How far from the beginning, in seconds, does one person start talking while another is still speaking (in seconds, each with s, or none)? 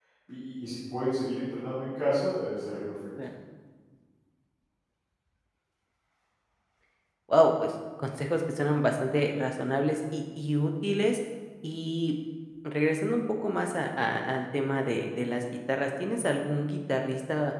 none